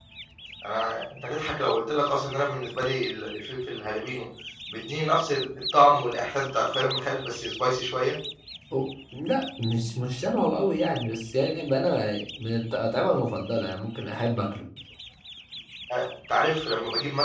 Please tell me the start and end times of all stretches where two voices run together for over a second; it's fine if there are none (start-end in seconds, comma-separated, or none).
none